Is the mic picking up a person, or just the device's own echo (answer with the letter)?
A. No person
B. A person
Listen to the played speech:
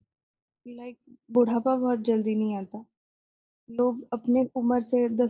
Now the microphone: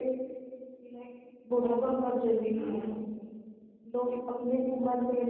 B